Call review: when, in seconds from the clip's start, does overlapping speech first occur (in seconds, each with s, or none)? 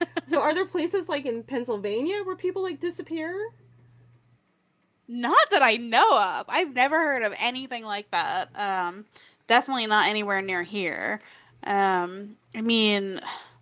none